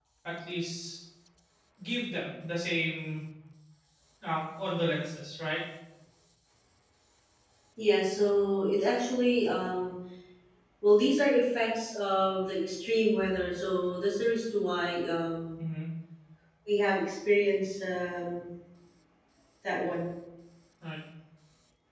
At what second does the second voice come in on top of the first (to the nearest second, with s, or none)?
none